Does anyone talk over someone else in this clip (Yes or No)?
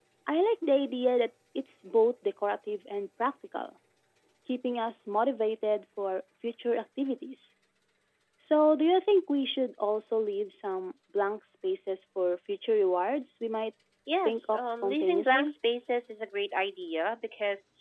Yes